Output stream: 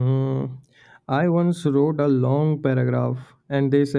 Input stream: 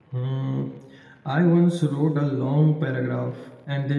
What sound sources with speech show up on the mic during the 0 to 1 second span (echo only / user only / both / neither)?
echo only